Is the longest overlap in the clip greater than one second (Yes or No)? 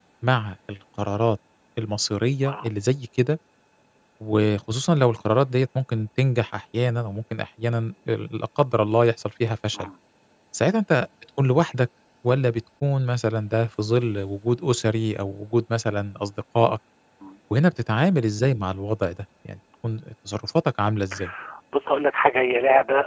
No